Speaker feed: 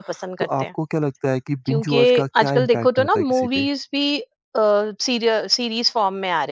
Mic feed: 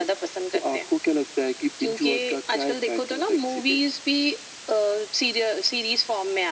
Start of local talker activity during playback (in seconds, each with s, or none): none